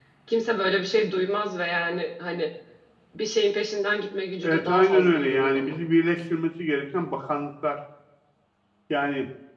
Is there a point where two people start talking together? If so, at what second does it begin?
4 s

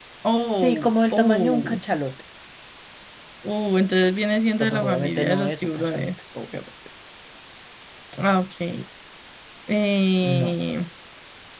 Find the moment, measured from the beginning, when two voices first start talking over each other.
1 s

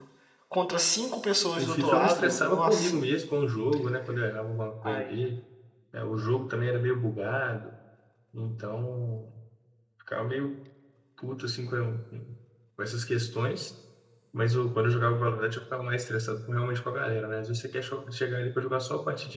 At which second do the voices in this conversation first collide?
2 s

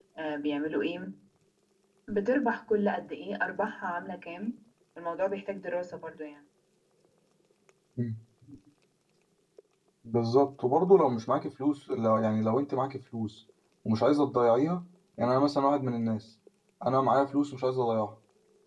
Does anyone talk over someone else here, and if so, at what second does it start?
none

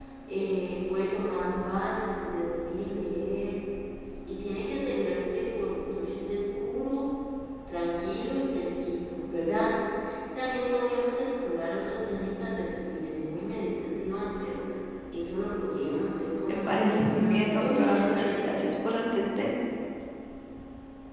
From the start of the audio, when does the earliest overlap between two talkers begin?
16 s

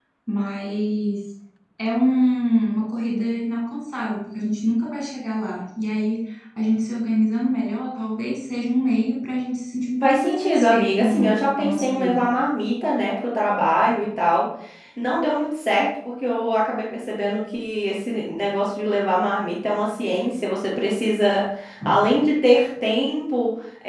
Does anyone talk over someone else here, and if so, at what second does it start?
10 s

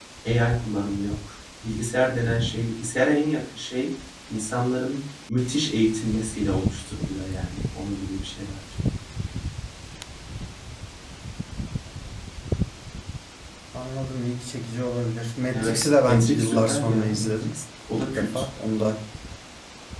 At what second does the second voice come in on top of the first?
16 s

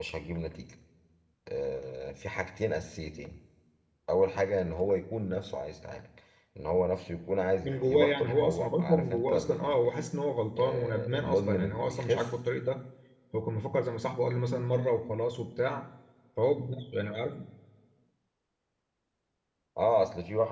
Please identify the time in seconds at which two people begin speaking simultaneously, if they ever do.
8 s

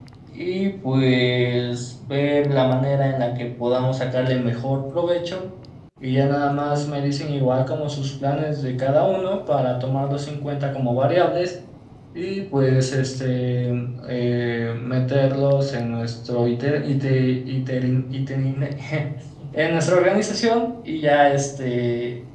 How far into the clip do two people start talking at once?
none

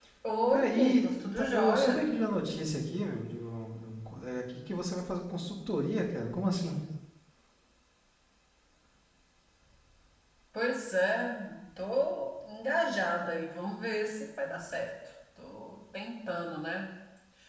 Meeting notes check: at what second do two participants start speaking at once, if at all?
1 s

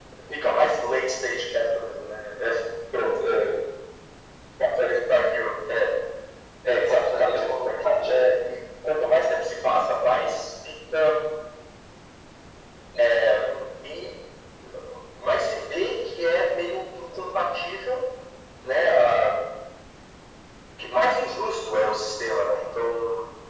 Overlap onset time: 7 s

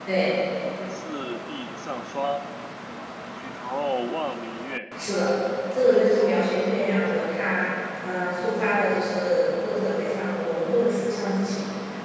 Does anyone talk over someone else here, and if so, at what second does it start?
6 s

